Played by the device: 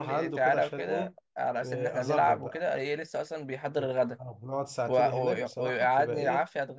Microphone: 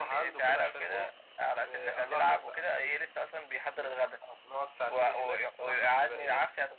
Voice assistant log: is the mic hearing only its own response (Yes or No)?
Yes